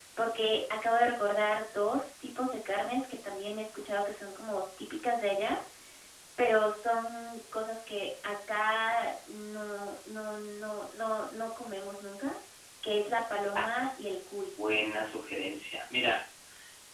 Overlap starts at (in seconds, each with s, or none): none